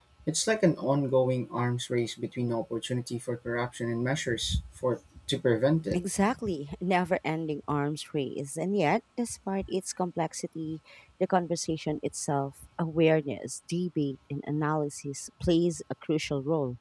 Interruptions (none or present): none